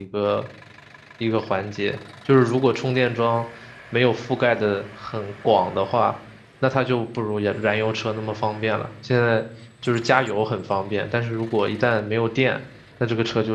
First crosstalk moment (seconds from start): none

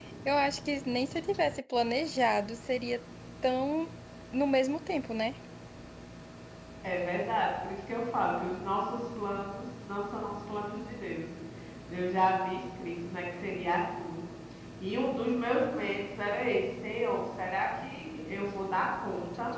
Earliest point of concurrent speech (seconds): none

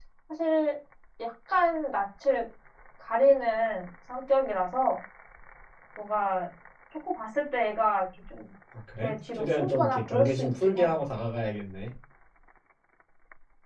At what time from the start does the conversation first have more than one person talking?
9 s

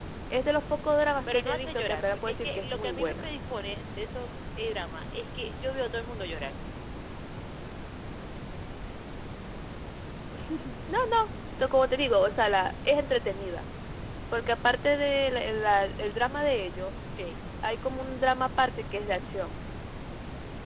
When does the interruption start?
1 s

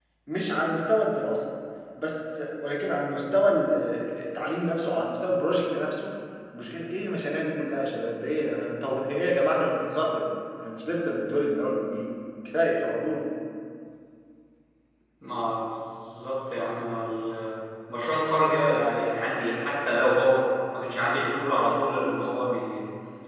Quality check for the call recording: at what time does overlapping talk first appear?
none

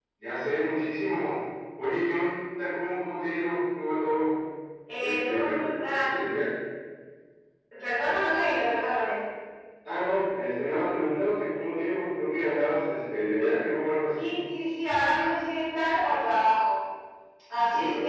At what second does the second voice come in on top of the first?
5 s

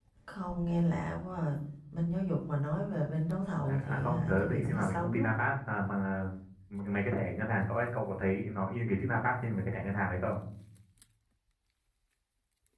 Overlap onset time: 4 s

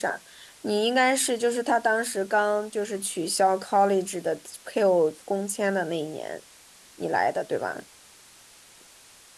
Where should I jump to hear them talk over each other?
none

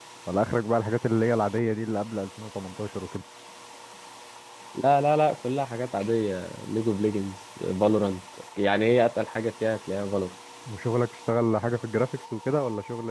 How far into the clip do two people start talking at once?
none

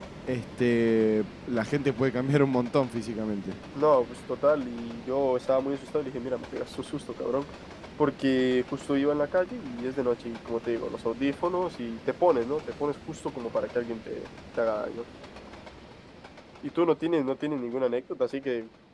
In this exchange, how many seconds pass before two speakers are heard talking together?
none

